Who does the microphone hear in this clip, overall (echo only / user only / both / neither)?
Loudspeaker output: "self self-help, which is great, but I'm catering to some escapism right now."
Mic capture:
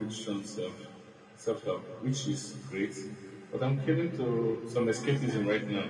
both